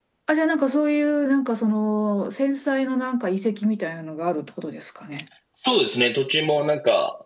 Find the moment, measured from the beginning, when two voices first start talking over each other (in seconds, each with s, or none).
none